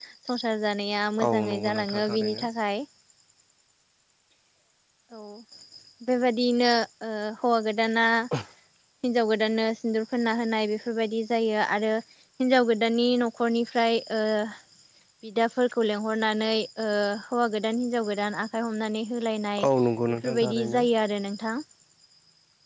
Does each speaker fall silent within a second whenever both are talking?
No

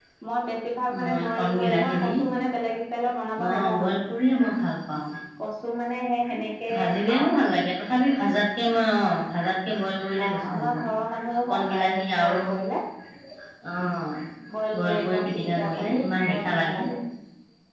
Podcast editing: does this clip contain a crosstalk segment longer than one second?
Yes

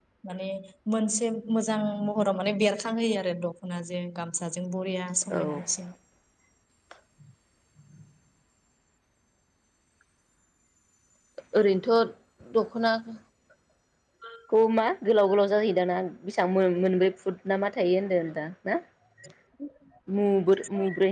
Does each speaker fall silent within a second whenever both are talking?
Yes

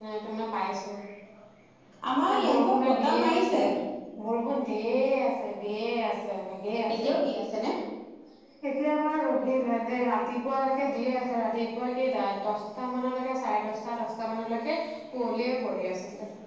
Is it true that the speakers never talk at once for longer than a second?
No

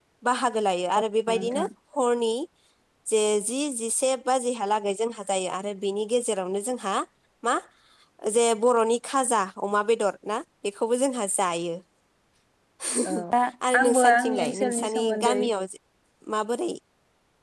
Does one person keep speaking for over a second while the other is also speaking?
Yes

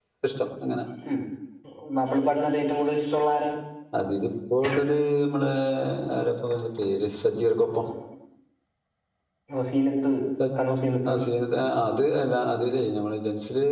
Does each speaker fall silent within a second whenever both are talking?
Yes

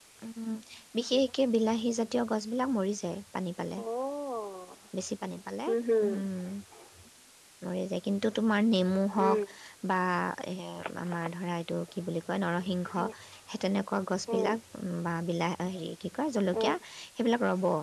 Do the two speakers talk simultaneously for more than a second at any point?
No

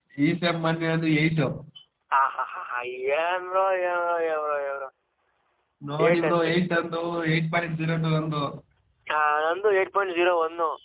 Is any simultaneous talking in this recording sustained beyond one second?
No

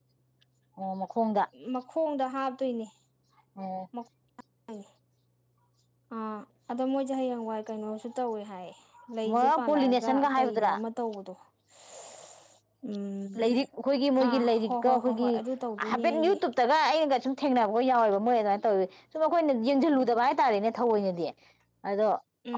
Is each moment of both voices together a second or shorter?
No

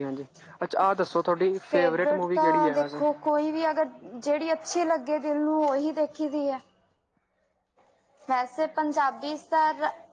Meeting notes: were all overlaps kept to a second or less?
No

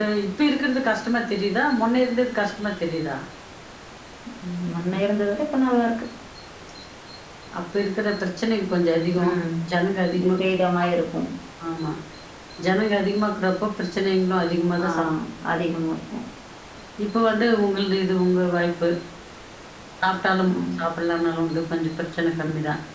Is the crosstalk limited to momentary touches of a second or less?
Yes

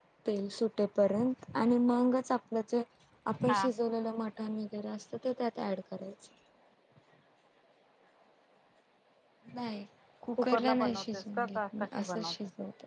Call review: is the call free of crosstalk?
No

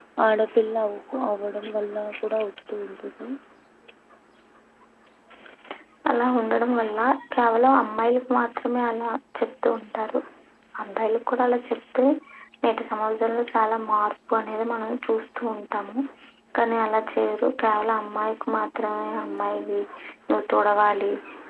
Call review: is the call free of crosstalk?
Yes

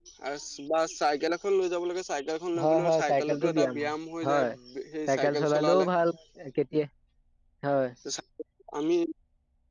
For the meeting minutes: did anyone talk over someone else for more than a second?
Yes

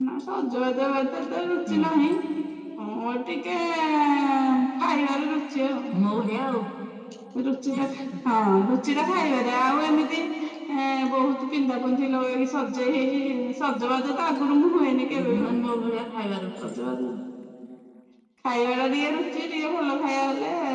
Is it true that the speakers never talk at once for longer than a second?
Yes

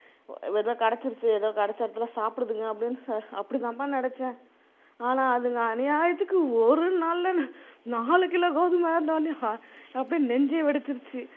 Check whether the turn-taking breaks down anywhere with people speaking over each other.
No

